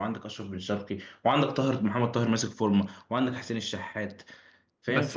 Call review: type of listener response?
taking over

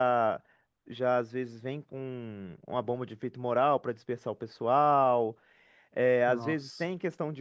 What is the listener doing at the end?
listening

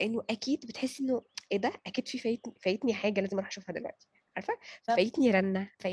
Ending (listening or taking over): listening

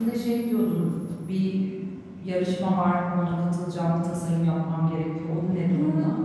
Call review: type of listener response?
taking over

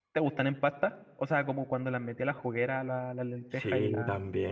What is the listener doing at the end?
taking over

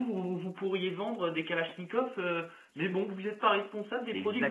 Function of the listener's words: taking over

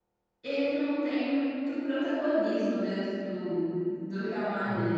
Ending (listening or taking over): listening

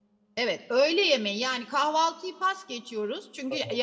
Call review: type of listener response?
listening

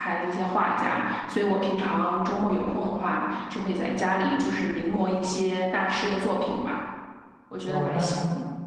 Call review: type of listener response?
taking over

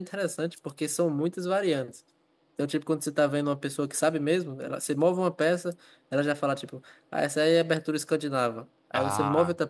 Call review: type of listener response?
listening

